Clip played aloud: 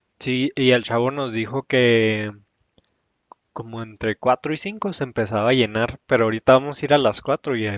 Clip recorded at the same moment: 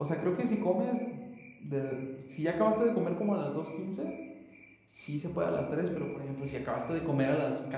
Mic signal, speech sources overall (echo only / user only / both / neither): user only